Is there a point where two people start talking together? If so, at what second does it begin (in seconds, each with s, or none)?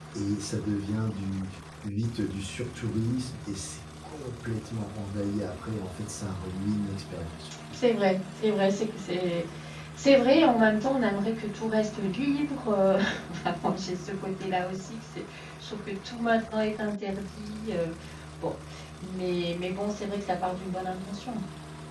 none